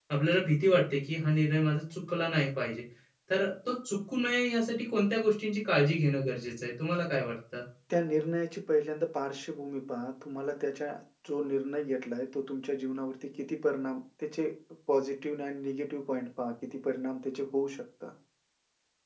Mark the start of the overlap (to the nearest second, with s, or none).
none